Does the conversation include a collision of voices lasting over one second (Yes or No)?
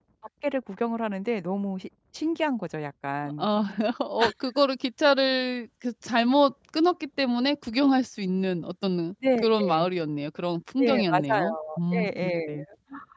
Yes